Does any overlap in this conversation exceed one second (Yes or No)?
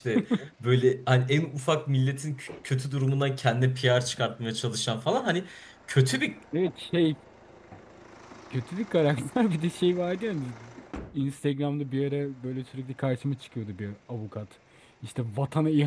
No